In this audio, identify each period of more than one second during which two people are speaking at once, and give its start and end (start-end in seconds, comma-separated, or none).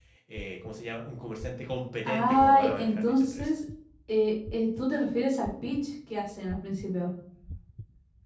2.1-3.5